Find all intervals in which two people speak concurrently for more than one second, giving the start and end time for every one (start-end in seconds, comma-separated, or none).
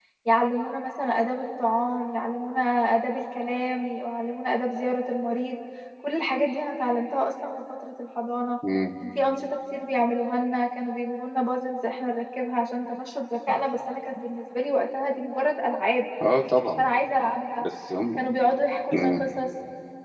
none